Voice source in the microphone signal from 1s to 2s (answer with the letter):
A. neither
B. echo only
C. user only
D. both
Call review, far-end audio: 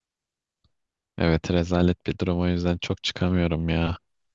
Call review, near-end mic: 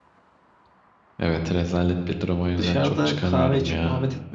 B